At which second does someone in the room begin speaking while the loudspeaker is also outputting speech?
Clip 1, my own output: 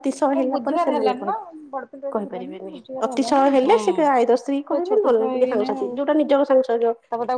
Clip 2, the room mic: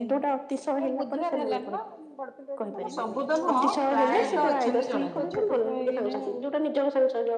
3 s

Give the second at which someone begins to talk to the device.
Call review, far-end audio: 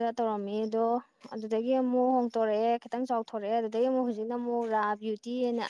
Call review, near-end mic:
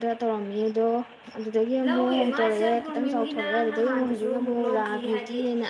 2 s

